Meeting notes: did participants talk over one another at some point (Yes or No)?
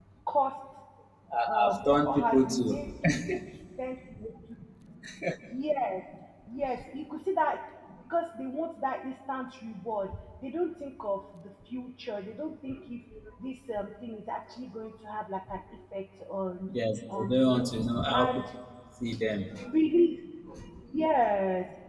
Yes